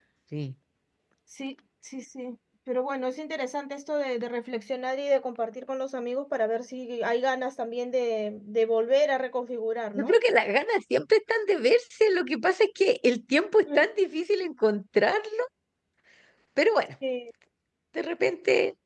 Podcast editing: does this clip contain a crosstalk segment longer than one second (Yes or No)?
No